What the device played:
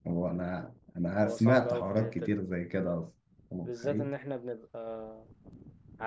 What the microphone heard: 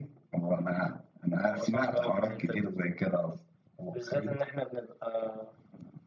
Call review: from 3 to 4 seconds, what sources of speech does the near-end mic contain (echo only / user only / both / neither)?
echo only